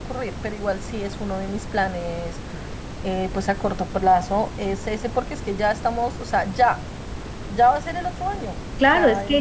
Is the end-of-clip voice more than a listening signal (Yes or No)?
Yes